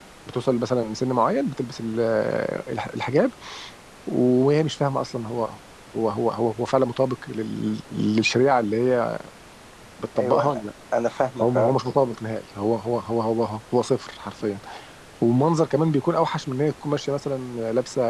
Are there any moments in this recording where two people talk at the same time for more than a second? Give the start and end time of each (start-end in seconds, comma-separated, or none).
none